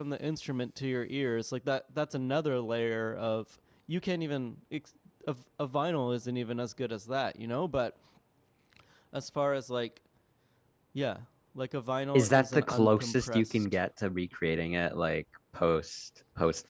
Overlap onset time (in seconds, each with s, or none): 12.1 s